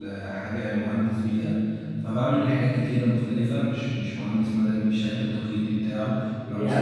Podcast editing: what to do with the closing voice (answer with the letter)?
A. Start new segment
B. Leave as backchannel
A